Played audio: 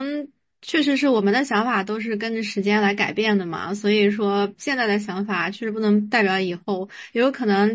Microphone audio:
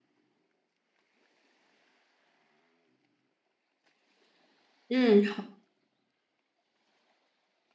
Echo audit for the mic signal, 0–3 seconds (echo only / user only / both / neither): neither